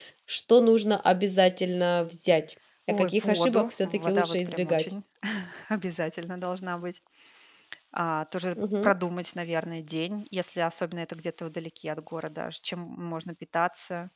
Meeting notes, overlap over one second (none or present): present